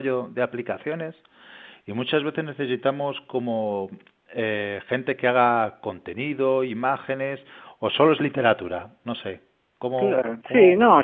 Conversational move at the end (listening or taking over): taking over